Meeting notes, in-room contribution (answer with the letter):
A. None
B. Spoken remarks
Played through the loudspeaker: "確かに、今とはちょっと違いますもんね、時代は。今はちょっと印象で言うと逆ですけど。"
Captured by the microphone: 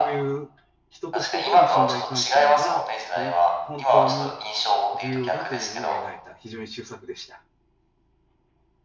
B